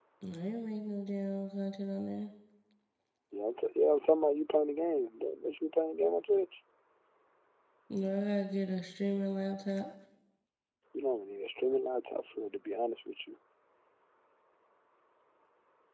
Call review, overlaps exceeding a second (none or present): none